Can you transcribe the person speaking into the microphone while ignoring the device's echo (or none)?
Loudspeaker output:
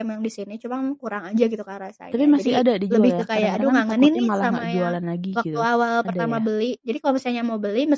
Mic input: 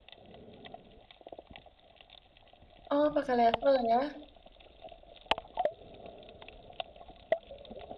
Oh, pakai level ya.